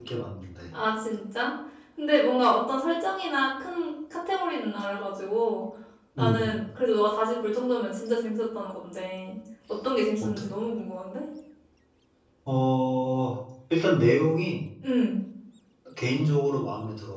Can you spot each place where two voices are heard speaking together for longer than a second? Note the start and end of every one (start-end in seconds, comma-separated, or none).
none